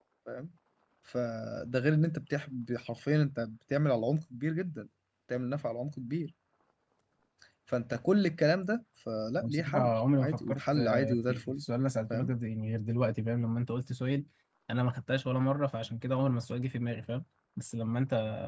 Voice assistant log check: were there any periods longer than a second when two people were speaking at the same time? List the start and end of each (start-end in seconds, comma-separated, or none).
9.4-11.6